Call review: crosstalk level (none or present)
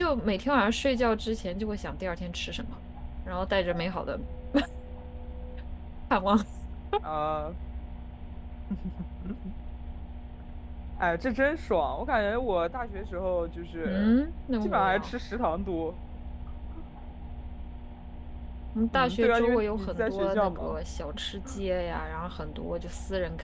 present